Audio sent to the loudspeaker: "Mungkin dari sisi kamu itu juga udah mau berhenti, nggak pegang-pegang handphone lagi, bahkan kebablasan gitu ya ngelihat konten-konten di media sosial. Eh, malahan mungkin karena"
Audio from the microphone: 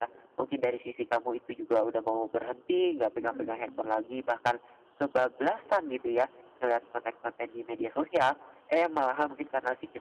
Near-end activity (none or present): present